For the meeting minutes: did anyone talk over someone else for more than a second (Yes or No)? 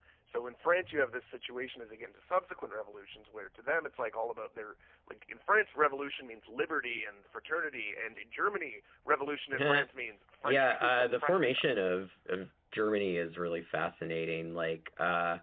Yes